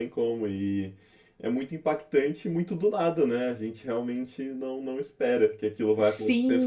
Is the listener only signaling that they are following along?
Yes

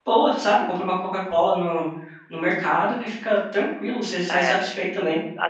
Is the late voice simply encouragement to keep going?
No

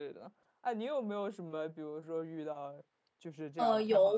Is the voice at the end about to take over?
Yes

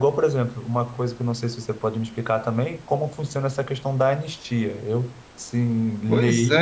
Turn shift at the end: Yes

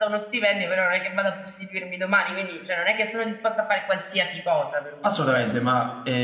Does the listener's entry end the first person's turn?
Yes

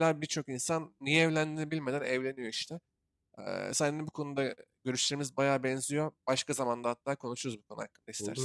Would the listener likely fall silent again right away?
No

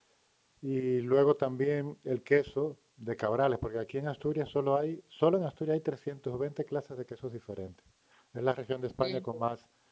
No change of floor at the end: Yes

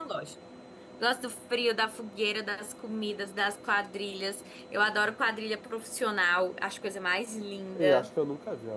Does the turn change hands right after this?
Yes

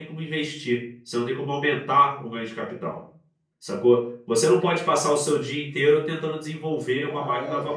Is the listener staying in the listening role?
No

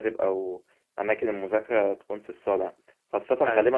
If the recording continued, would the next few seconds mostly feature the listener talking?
No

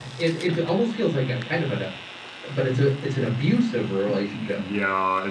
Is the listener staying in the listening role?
No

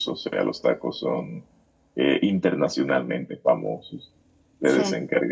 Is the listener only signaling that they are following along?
Yes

